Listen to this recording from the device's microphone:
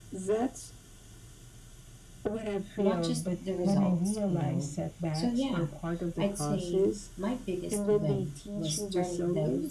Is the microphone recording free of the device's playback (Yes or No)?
No